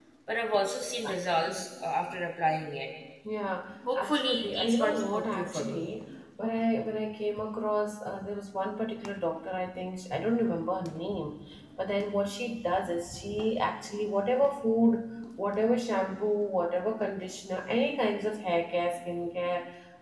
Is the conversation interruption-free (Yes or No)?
No